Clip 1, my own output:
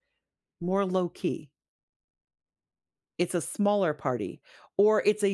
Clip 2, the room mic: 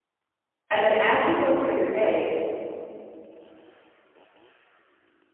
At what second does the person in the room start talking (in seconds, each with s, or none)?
0.7 s